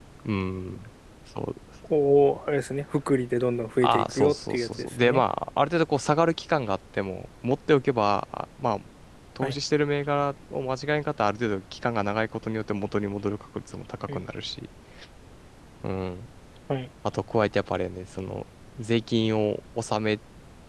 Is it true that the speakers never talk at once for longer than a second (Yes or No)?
No